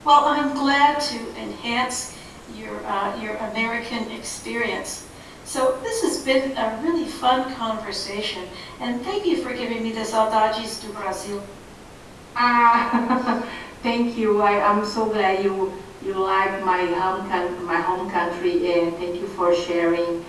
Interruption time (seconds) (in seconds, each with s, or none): none